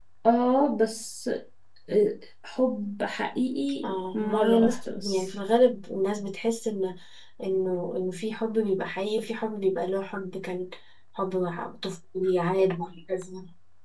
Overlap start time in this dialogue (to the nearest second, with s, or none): 4 s